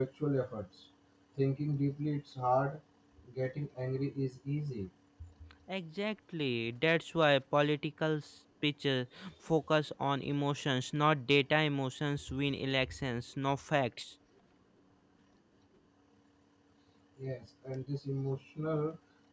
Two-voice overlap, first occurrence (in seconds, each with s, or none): none